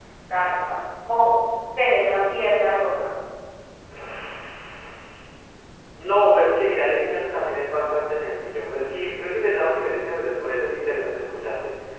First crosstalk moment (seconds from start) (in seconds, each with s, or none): none